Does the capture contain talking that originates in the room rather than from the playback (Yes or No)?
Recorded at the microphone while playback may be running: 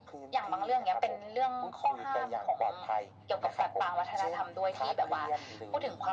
No